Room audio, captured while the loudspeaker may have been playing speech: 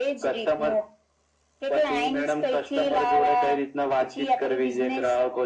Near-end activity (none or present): none